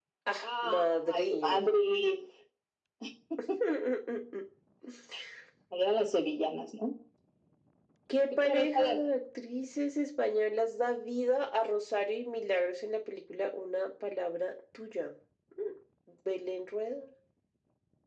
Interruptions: present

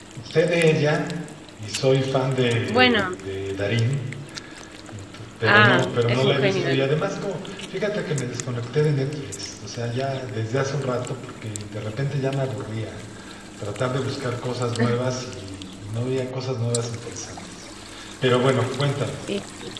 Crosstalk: present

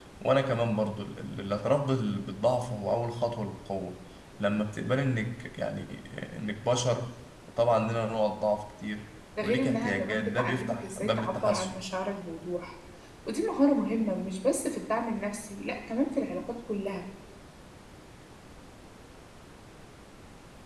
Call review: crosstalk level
present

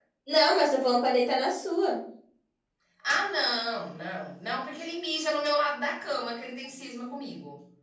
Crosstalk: none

